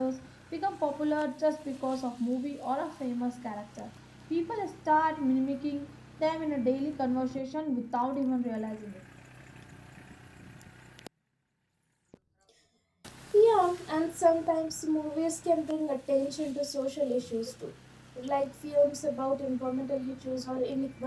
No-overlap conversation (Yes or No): Yes